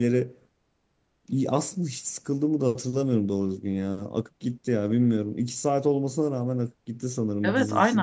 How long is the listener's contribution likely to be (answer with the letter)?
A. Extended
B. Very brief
A